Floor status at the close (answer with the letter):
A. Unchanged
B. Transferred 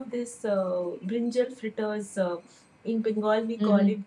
A